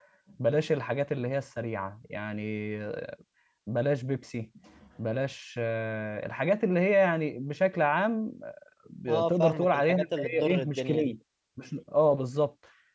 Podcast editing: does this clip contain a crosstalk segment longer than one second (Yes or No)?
Yes